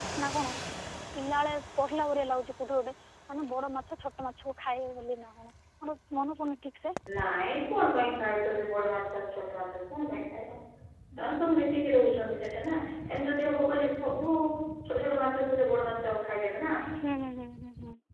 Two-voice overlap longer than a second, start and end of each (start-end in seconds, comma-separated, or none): none